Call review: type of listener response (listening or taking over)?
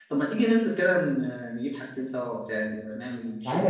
taking over